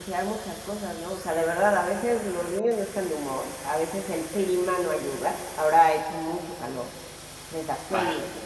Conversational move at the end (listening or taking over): listening